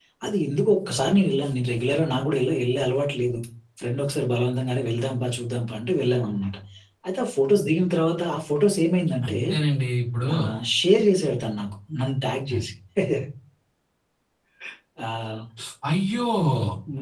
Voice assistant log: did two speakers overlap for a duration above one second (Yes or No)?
No